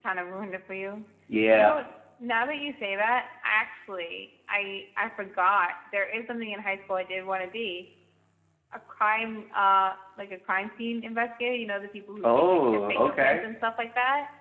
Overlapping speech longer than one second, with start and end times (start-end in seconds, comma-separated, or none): 12.2-13.4